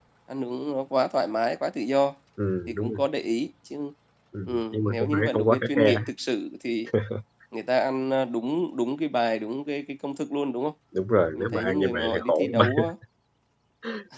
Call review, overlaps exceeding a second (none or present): present